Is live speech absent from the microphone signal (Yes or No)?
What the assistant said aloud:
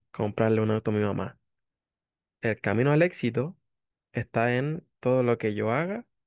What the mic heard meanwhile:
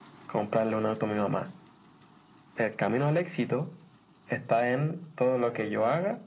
Yes